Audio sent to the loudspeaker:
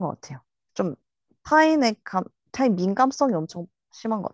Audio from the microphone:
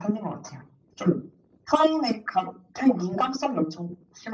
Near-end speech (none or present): none